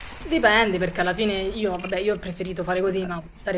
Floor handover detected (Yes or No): No